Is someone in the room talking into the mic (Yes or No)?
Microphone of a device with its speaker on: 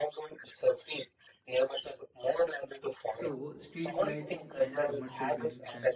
Yes